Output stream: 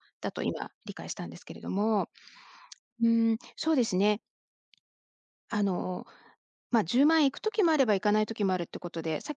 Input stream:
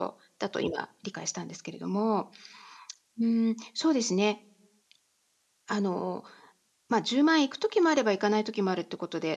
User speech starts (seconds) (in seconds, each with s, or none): none